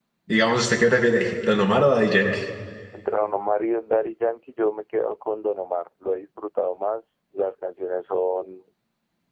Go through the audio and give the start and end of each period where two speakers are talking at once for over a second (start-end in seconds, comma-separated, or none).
none